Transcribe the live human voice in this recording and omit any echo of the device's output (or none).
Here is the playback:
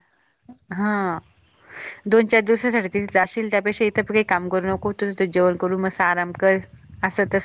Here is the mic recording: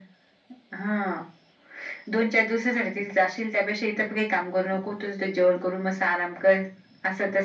none